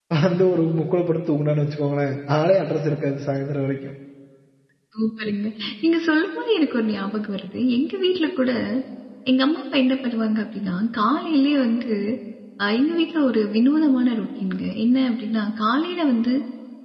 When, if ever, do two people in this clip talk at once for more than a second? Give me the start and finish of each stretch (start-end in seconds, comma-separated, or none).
none